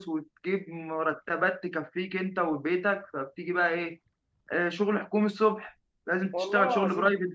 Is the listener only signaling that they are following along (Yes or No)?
Yes